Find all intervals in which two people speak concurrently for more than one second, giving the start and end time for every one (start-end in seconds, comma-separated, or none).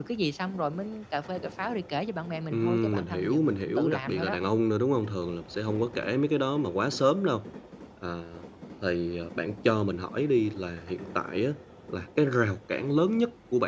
2.5-4.3